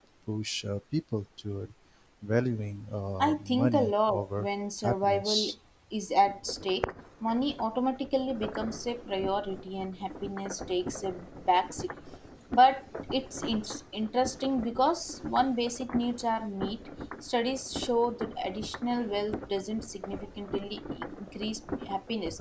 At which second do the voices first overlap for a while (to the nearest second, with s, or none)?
3 s